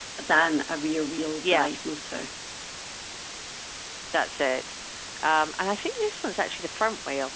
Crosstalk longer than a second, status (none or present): none